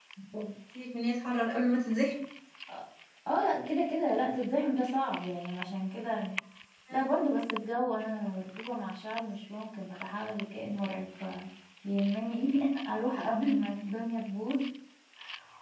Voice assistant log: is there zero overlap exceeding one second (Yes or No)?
Yes